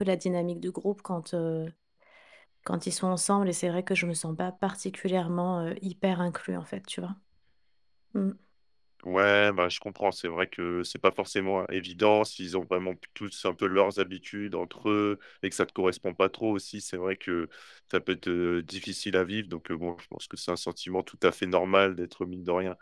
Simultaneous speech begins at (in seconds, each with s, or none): none